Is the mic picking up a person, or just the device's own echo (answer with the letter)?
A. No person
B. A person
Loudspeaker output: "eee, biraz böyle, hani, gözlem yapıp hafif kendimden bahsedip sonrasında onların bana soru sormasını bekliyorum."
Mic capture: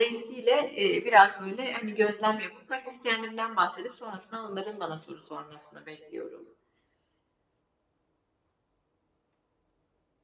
A